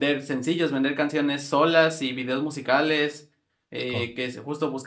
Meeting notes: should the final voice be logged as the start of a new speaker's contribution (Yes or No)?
No